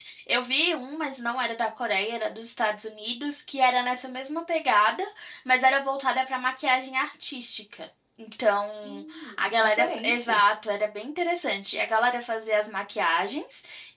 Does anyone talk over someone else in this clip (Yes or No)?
Yes